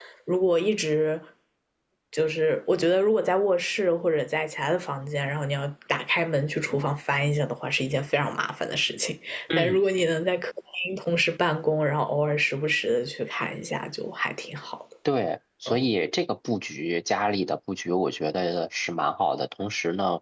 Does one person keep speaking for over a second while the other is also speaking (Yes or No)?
No